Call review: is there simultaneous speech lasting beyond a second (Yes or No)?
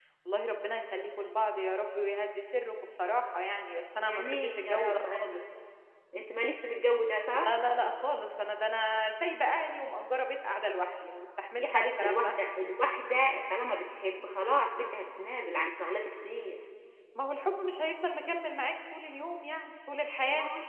Yes